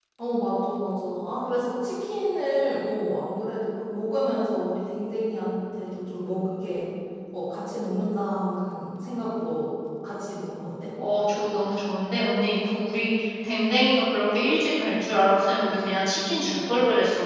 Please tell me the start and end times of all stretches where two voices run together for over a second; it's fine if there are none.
none

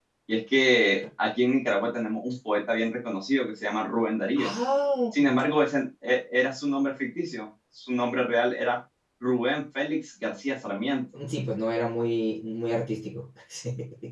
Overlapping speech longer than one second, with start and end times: none

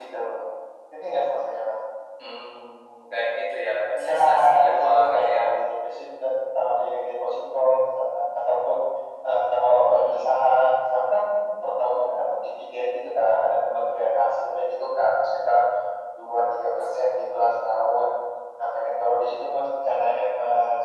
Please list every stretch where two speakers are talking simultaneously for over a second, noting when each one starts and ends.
4.0-5.4

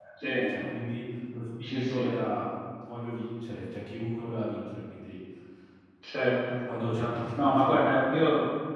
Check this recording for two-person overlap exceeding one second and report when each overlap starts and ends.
none

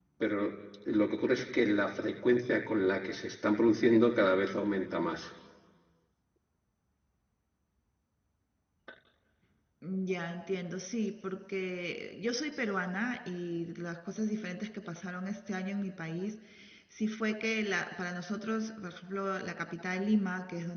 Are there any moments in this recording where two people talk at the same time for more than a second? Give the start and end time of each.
none

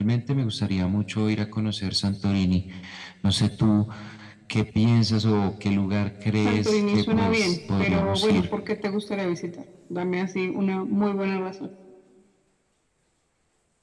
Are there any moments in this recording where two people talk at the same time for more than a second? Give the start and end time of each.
6.4-8.5

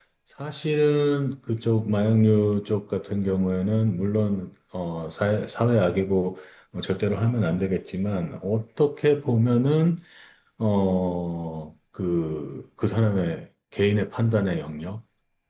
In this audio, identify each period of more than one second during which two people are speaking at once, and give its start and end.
none

